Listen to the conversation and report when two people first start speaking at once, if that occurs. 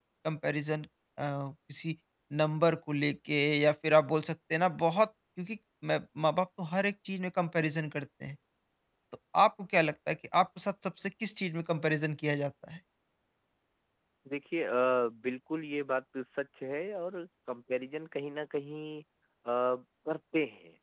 none

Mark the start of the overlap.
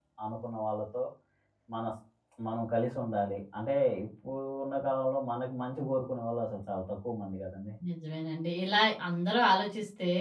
none

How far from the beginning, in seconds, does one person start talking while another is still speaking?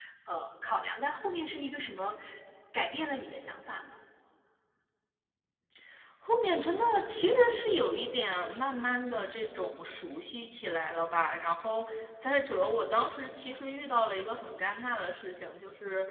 none

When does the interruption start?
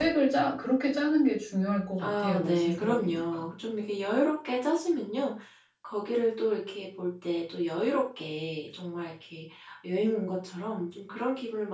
2.0 s

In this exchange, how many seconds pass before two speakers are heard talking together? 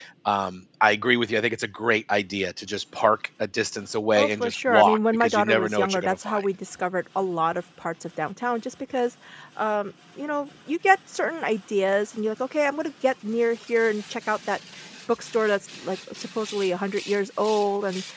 4.2 s

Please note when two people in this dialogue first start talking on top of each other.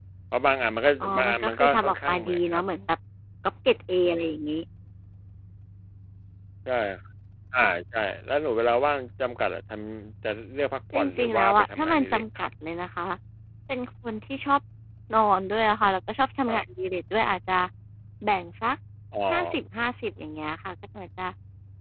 1.0 s

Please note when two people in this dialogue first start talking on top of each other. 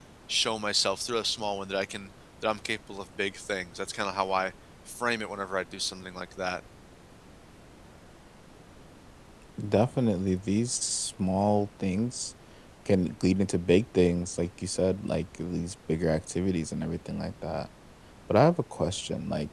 none

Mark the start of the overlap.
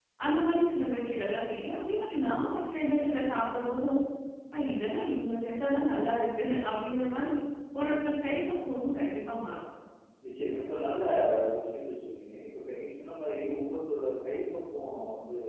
none

